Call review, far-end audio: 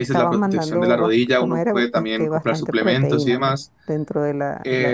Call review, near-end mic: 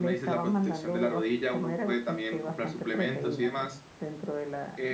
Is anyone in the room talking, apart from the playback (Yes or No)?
No